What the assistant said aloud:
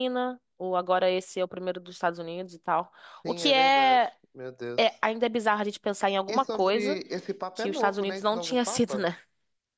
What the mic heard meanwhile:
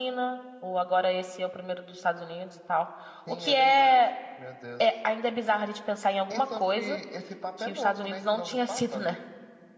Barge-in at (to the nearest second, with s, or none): none